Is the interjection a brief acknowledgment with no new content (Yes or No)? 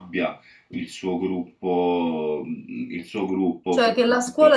No